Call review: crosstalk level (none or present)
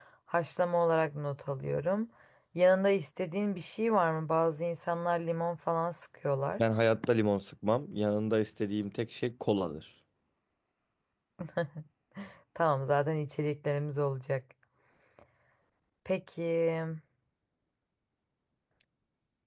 none